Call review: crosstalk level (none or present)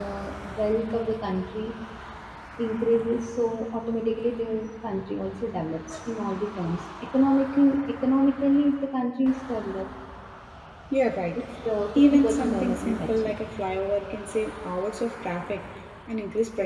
present